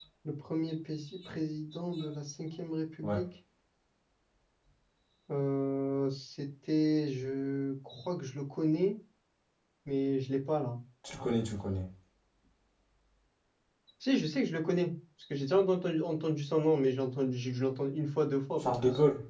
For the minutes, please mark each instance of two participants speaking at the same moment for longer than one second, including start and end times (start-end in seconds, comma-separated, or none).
none